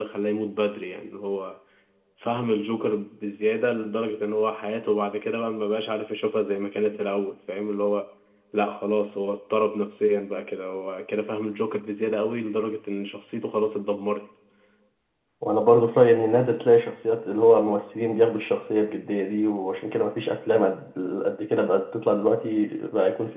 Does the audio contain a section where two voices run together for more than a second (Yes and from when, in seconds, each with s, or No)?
No